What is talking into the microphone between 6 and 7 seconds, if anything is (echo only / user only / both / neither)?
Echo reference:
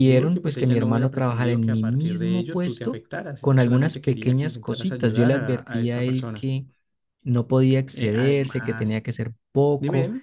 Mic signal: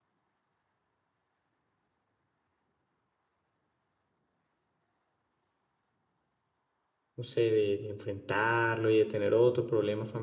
neither